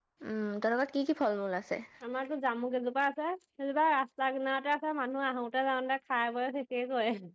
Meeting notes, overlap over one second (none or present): none